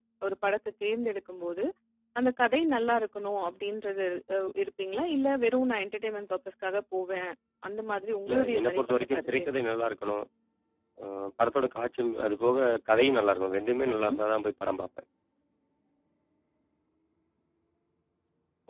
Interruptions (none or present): present